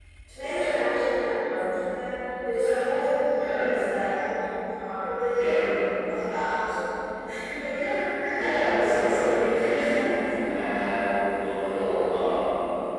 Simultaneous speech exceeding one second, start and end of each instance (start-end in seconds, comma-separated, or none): 8.3-10.1